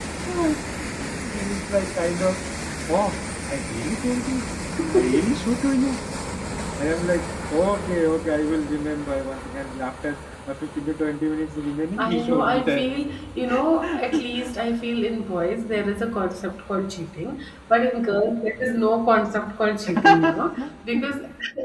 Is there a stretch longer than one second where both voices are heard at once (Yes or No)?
Yes